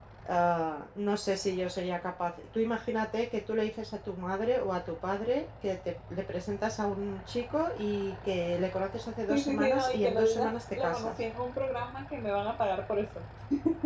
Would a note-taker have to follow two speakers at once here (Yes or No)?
Yes